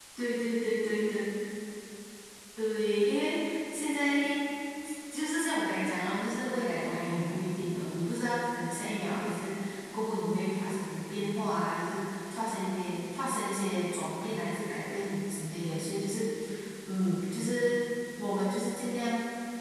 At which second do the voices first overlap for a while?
none

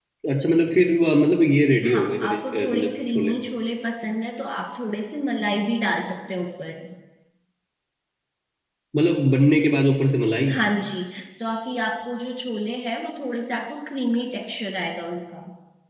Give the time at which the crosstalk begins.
1.8 s

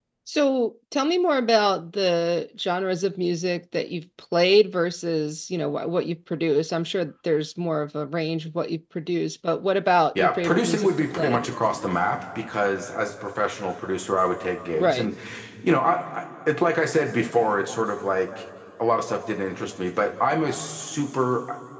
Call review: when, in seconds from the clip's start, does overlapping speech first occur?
10.2 s

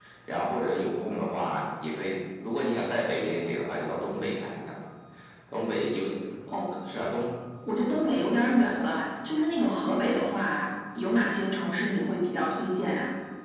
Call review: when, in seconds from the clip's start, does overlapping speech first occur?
none

